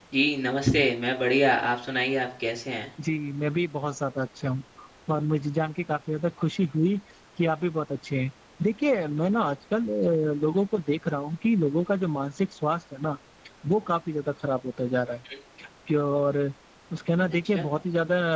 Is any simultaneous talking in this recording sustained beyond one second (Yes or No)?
No